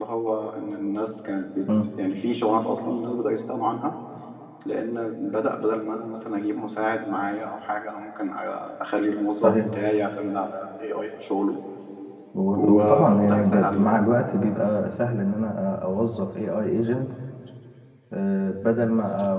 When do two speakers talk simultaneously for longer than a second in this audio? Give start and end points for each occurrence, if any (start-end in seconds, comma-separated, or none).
12.5-14.0